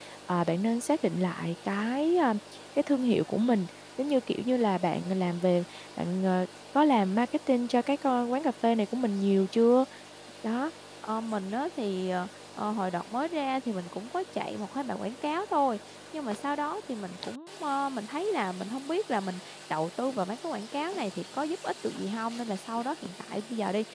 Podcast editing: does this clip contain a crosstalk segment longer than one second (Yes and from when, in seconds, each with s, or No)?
No